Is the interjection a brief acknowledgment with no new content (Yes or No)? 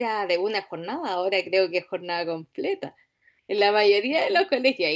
Yes